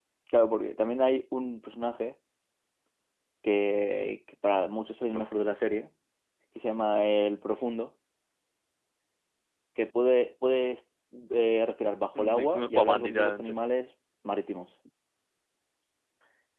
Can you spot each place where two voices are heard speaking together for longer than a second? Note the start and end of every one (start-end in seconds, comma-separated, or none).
12.2-13.6